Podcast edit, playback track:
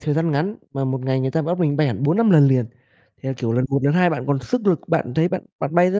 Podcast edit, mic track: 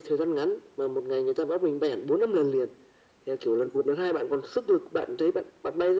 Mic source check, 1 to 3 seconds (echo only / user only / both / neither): echo only